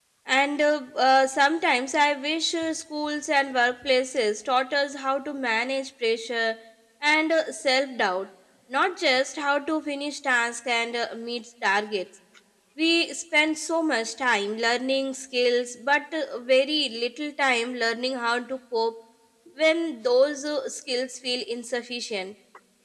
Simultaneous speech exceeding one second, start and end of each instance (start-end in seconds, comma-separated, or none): none